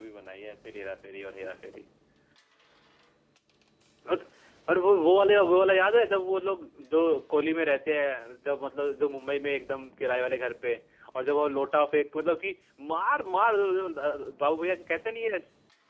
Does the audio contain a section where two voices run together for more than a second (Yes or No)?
No